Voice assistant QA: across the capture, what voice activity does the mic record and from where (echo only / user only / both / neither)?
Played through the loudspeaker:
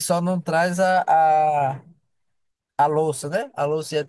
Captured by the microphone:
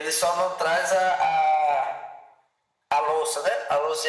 echo only